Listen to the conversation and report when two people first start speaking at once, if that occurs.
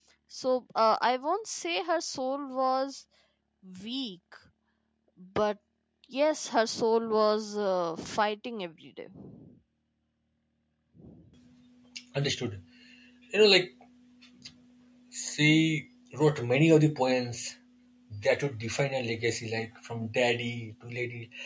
none

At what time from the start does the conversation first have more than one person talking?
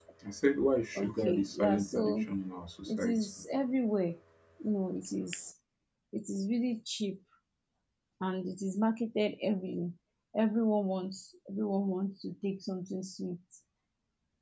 1 s

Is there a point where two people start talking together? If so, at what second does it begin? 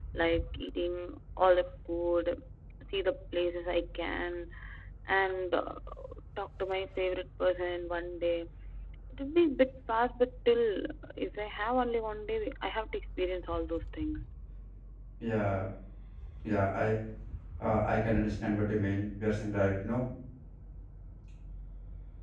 none

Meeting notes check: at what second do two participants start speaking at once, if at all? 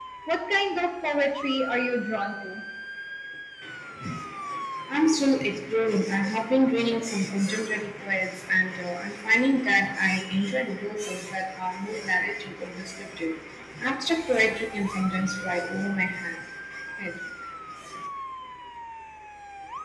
none

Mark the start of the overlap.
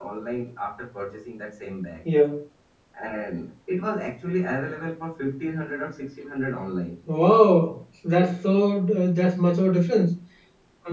none

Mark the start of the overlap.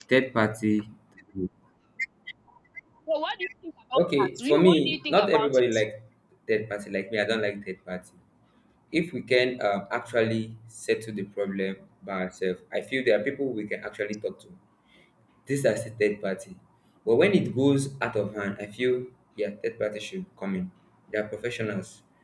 4 s

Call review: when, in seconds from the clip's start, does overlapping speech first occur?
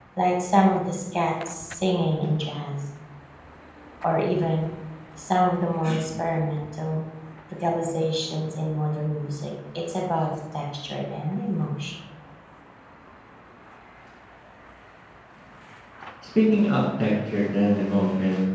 none

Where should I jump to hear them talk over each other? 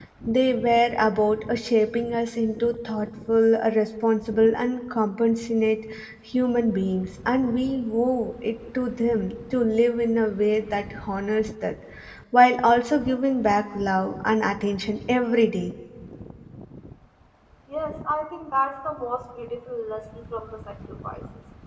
none

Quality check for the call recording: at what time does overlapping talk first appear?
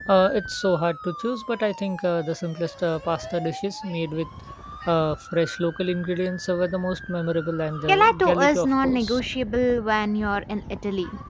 8 s

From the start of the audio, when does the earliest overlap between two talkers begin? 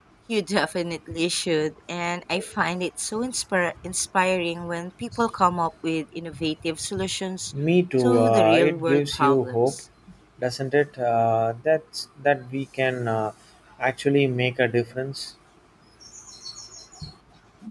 8 s

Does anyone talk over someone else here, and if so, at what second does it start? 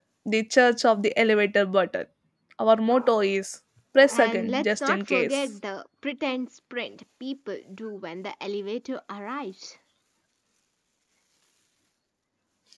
4 s

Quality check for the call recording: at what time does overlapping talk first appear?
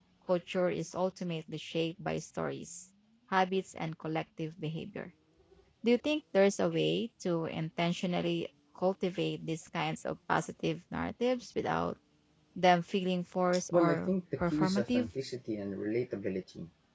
14 s

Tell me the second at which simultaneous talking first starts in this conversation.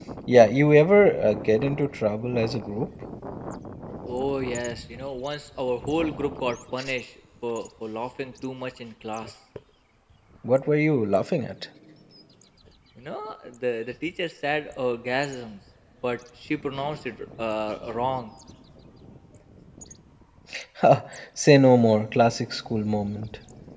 none

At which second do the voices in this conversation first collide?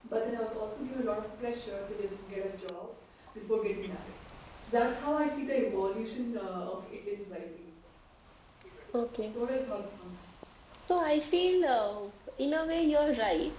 none

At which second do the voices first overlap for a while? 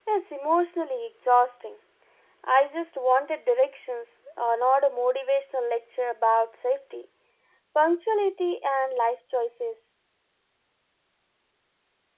none

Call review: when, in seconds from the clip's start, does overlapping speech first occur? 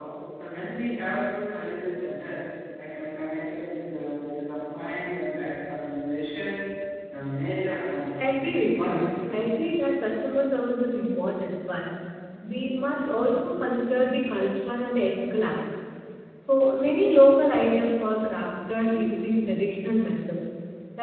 8 s

